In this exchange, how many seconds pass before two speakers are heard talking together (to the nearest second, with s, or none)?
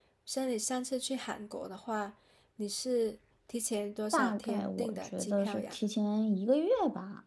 4 s